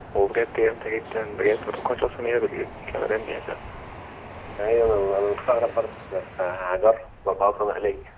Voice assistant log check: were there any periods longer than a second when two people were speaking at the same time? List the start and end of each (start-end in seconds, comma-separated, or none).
none